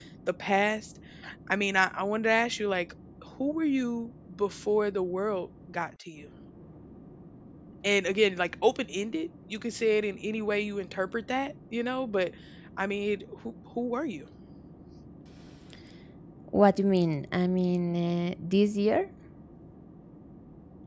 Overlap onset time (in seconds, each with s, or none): none